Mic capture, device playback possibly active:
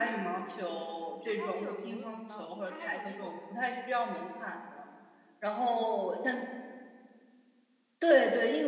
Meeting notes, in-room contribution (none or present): present